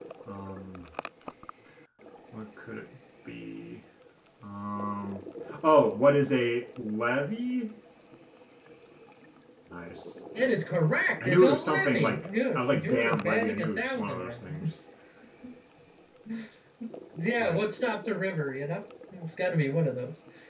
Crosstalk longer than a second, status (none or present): present